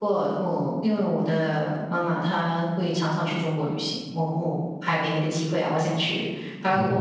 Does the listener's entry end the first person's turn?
No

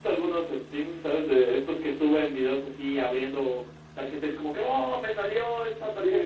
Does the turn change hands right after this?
Yes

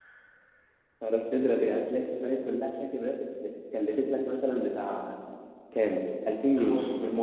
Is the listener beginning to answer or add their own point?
Yes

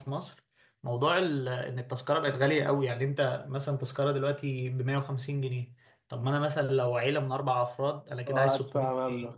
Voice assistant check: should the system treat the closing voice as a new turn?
Yes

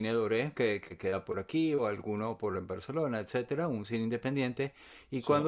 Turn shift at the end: No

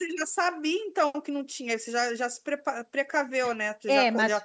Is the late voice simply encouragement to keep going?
No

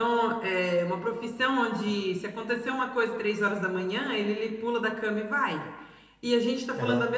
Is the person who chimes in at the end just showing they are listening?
Yes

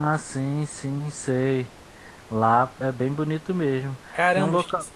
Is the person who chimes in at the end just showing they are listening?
No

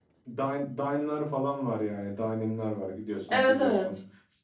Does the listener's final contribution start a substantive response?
No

